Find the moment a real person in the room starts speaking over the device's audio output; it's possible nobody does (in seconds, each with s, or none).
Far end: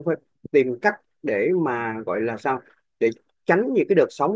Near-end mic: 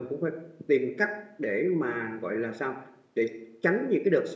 none